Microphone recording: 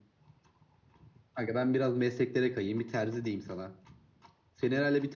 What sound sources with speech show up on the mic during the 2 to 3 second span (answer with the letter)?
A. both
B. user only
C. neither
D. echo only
D